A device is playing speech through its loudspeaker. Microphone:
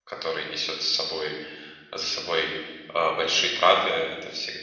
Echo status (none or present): none